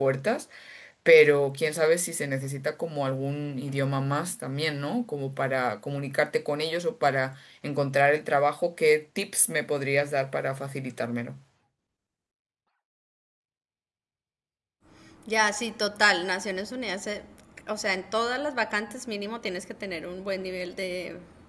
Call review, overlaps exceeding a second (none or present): none